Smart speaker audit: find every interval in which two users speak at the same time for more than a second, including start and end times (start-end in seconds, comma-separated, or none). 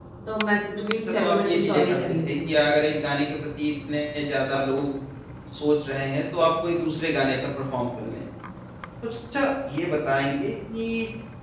1.0-2.5